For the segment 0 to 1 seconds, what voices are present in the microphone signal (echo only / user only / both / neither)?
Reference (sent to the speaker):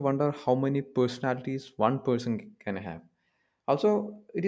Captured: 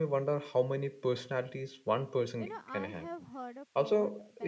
echo only